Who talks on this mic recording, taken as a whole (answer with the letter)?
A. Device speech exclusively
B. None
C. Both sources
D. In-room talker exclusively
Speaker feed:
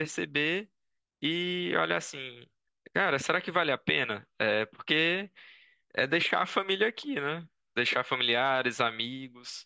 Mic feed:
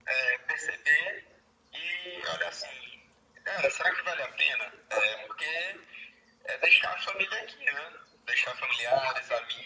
A